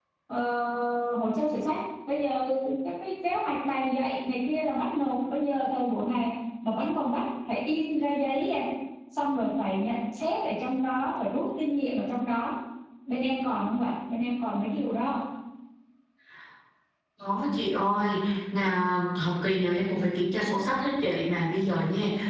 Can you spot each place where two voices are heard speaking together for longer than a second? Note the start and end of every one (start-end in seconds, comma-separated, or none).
none